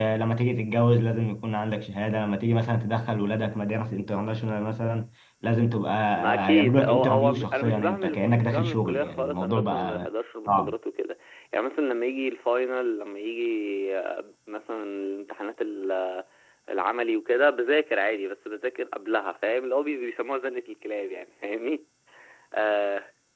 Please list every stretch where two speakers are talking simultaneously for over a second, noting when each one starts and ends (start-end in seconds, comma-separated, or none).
6.2-10.1